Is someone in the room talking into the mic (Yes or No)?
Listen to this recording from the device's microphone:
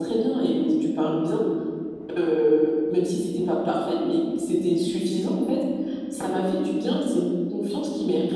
No